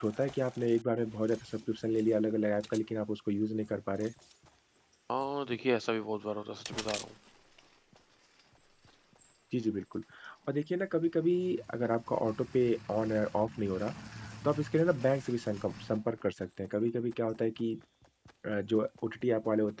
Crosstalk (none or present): none